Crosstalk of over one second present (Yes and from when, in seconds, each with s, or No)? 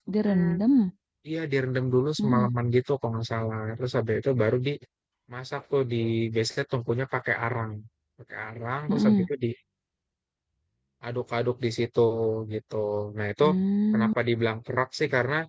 No